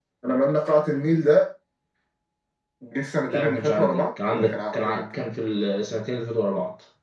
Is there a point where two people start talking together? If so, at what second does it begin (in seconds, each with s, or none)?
3.3 s